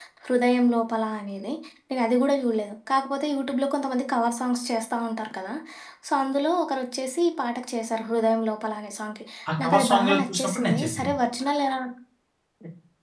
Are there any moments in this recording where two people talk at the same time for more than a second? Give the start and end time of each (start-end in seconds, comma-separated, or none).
9.6-11.1